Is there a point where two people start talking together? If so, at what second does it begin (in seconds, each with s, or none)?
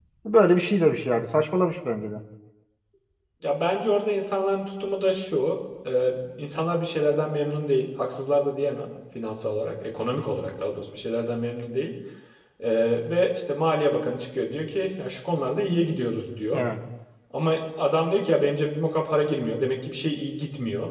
none